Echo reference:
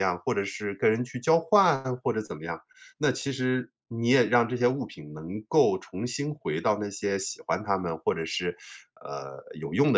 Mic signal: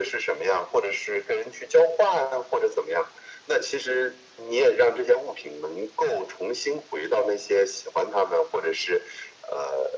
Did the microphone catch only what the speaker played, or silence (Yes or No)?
Yes